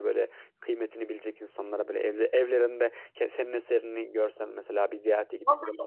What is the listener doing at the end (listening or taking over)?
taking over